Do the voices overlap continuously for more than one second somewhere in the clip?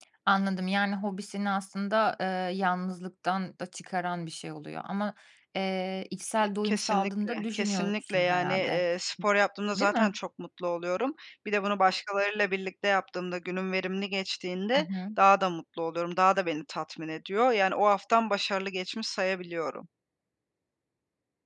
Yes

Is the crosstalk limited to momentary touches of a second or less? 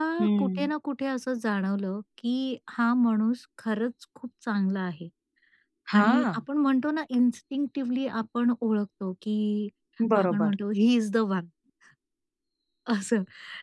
Yes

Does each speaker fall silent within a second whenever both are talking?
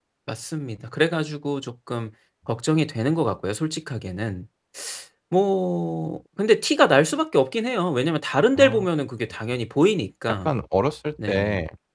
Yes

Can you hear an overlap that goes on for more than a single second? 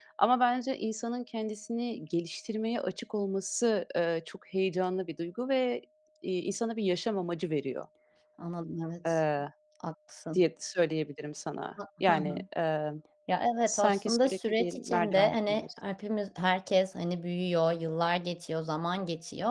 Yes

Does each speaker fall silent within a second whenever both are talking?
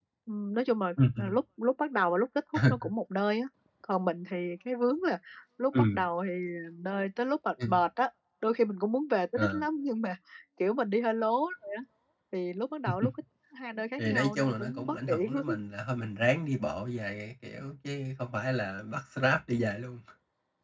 No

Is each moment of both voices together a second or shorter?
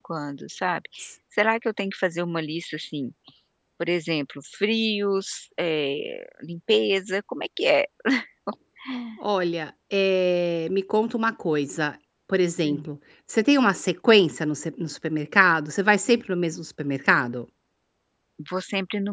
Yes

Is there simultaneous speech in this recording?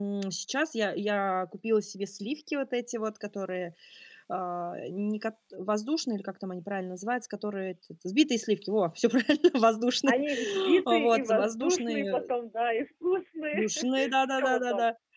Yes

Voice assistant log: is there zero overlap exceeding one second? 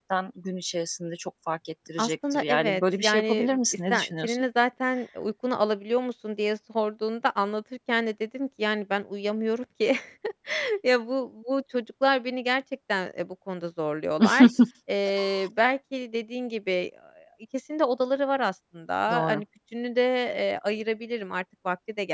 No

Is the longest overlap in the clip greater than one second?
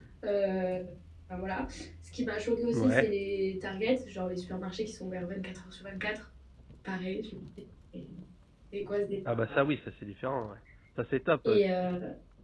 No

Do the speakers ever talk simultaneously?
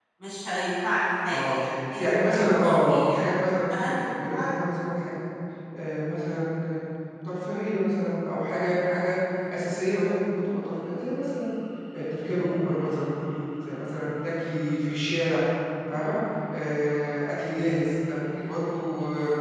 Yes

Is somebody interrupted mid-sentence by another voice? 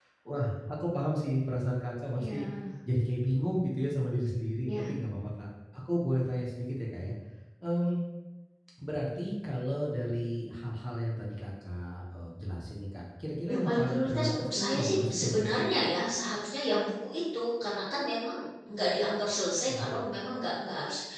Yes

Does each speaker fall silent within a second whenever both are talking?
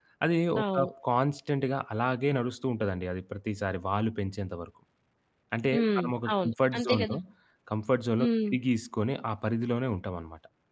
No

